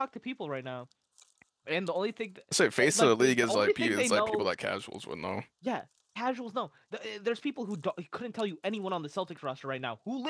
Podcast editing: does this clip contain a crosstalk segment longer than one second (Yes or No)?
Yes